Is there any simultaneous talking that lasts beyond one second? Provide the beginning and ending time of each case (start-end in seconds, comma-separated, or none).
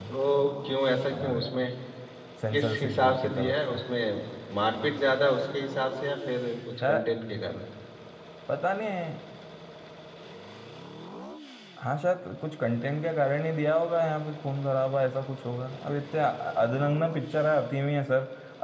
2.5-3.8